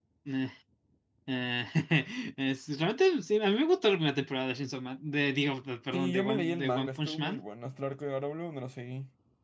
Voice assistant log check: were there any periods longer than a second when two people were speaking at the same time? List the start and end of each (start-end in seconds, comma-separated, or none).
5.9-7.4